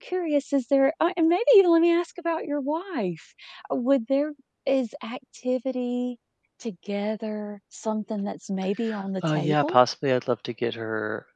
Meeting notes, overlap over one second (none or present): none